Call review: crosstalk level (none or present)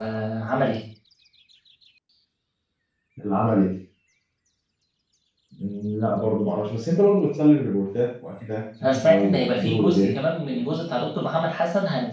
present